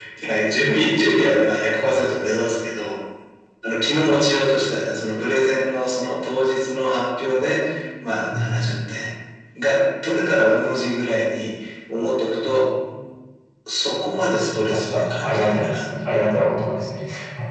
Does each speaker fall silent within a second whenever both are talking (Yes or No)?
No